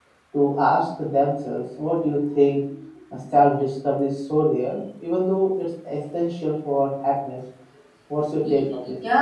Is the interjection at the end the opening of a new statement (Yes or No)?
Yes